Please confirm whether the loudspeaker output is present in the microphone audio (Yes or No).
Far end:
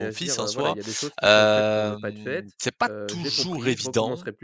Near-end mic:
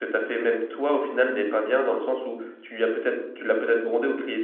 No